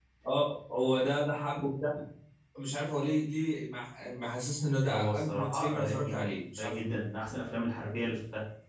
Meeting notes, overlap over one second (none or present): present